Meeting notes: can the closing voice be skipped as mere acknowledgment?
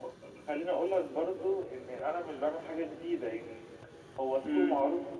Yes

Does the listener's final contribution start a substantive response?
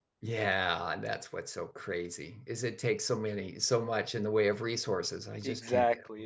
Yes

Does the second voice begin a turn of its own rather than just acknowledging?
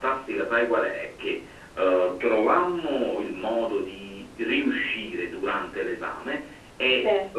No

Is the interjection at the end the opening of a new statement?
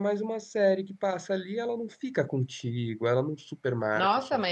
Yes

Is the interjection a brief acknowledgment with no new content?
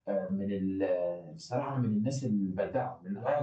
No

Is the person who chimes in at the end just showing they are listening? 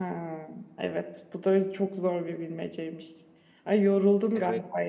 Yes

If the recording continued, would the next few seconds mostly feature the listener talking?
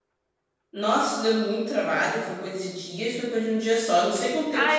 Yes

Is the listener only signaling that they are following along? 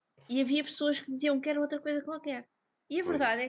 Yes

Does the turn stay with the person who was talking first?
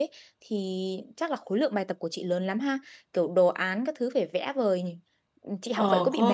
No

